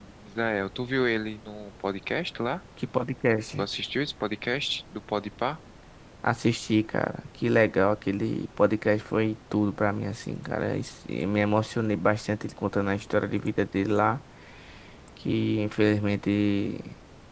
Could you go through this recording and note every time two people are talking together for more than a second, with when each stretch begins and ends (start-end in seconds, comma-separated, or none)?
none